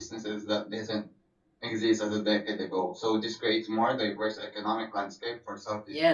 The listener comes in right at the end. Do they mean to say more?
Yes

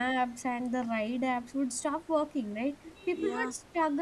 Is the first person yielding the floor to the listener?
No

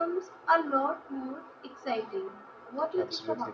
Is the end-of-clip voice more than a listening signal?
Yes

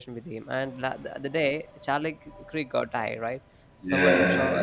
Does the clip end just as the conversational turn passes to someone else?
No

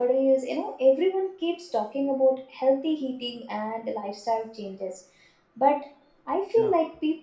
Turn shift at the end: No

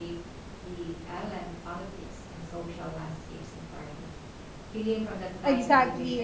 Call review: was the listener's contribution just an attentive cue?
No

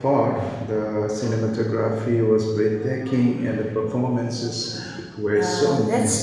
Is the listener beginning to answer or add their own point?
Yes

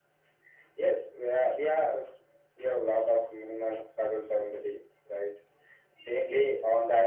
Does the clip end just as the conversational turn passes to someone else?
No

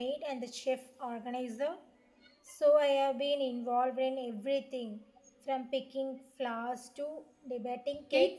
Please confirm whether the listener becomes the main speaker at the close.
Yes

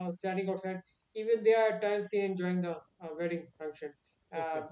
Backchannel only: Yes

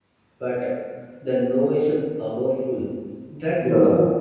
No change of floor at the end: Yes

